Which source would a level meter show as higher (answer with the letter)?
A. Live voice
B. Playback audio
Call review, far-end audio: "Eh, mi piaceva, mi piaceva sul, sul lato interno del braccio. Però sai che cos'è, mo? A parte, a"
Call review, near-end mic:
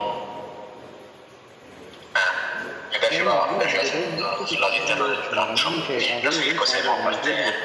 B